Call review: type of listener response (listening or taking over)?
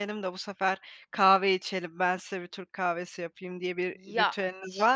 taking over